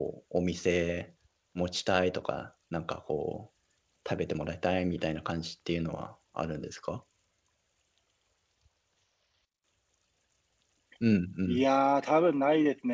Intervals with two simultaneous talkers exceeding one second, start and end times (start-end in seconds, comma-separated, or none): none